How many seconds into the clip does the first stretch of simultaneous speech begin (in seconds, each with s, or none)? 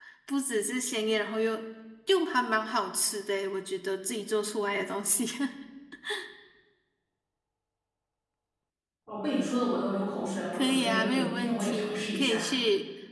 10.5 s